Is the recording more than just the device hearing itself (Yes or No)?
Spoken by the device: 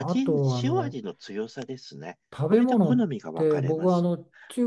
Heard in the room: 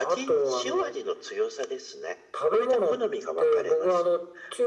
No